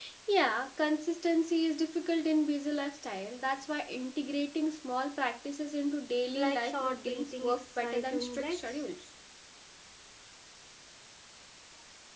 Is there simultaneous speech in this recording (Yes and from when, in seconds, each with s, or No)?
Yes, from 6.3 s